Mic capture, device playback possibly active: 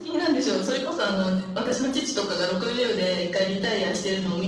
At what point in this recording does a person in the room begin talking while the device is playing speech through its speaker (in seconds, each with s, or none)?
0.3 s